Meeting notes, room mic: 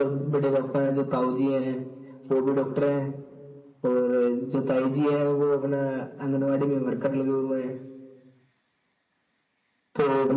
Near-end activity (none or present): none